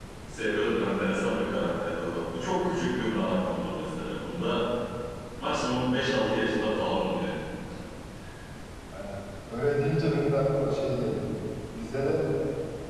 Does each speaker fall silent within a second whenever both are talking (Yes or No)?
Yes